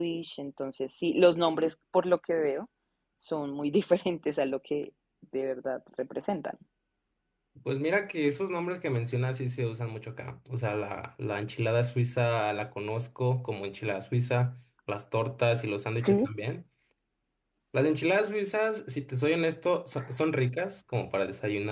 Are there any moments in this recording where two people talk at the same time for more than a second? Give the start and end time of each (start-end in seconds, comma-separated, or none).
none